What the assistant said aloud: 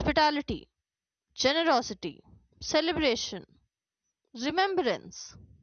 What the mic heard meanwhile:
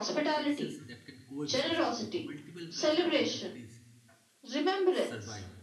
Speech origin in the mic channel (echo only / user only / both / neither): both